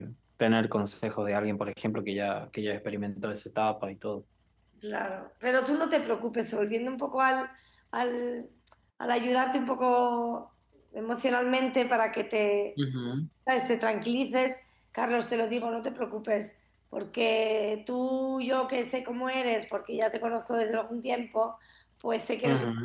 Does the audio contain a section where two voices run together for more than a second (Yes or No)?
No